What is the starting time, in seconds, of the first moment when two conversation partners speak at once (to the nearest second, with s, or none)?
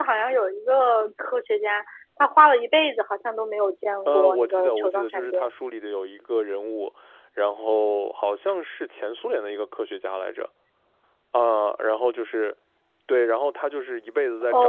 4 s